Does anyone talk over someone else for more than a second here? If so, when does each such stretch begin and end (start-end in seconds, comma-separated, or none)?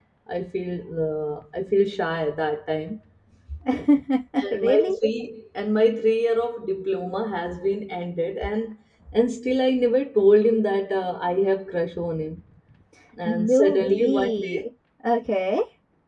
13.3-14.6